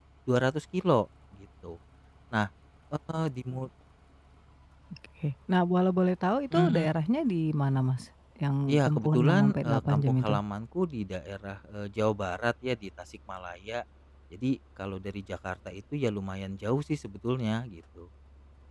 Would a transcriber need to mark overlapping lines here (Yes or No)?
Yes